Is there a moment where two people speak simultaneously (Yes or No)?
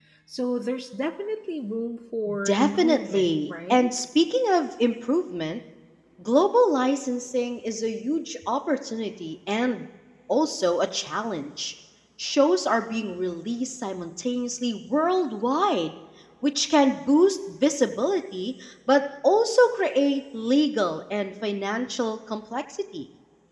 Yes